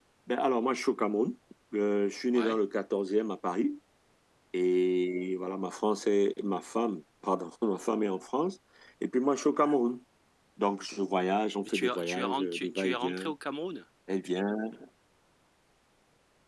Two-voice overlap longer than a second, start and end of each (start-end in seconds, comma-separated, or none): 11.7-13.3